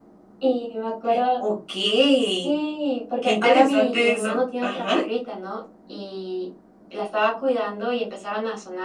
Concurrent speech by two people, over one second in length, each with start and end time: 3.2-5.0

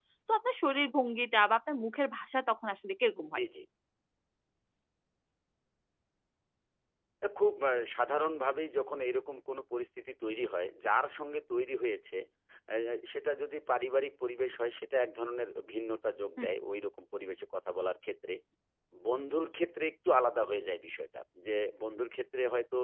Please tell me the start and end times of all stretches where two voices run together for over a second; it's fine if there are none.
none

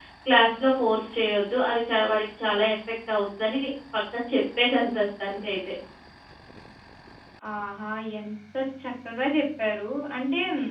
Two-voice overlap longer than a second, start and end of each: none

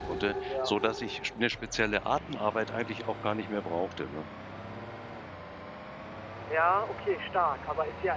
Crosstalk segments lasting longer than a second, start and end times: none

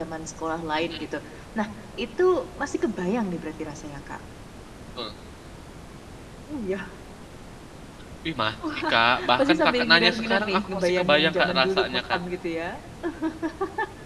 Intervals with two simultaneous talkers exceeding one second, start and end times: 9.4-12.2

